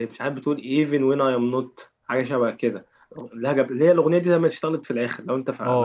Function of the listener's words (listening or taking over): taking over